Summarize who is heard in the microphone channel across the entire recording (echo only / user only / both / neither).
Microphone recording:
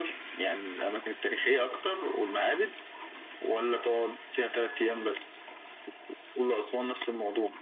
echo only